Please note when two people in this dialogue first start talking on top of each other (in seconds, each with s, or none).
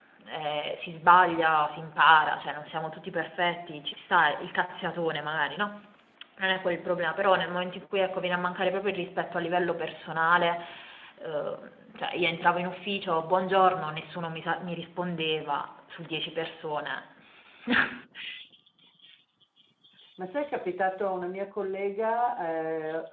none